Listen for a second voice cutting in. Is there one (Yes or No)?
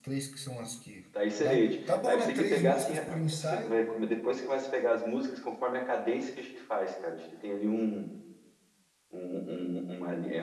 Yes